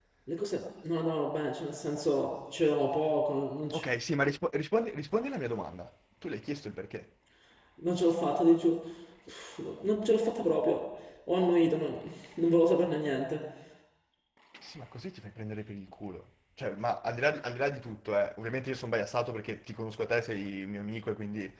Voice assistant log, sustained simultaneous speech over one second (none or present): none